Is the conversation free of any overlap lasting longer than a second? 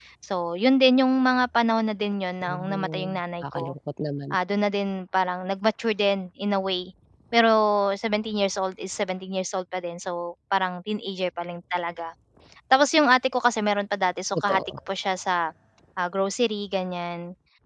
No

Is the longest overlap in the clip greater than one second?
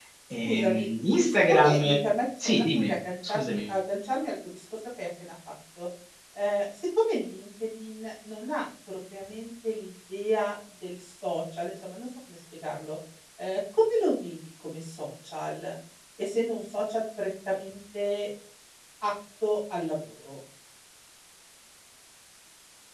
Yes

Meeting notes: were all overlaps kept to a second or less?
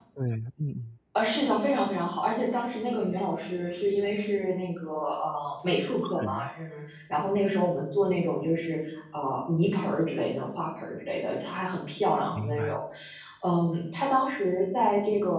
Yes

